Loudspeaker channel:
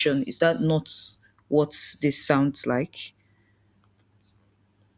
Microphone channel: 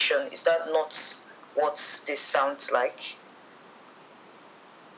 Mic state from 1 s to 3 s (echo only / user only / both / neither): echo only